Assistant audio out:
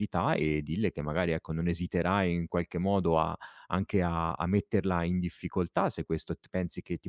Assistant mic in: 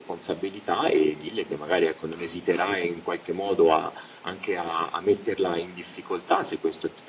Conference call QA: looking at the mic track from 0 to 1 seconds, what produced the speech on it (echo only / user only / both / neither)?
echo only